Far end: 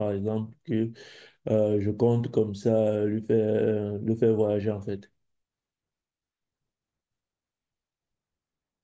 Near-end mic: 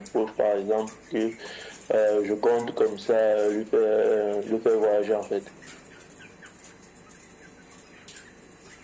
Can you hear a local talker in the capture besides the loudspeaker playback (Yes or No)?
No